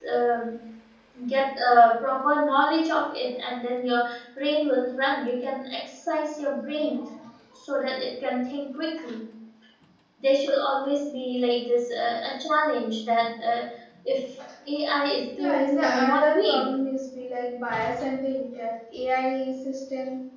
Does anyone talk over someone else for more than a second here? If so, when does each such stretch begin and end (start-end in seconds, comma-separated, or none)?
15.4-16.7